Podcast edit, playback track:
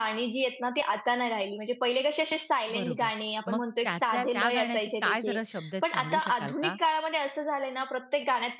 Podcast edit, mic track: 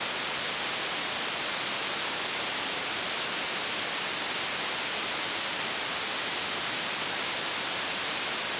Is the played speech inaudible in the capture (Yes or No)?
Yes